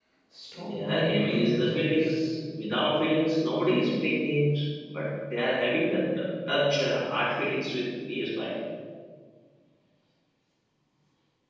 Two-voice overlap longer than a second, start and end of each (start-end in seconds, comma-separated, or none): 0.6-2.3